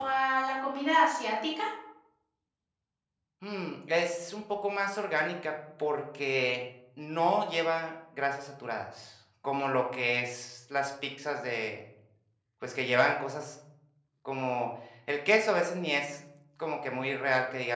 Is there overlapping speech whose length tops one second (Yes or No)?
No